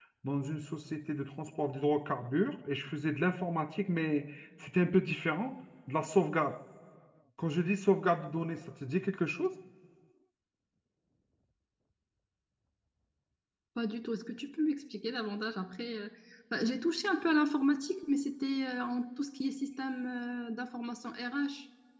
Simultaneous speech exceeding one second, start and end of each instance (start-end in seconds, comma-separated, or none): none